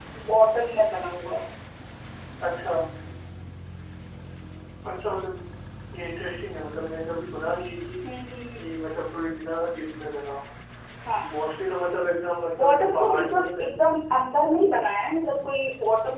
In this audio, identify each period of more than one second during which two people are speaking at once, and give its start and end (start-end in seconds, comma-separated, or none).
12.6-13.9